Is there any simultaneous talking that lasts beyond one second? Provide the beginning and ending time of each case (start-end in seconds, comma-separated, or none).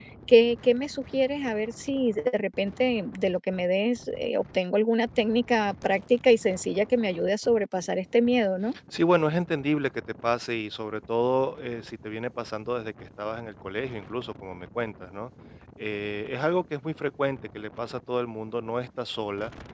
none